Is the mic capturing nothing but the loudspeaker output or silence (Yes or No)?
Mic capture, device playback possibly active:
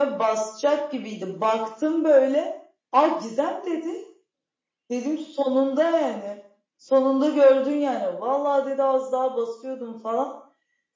Yes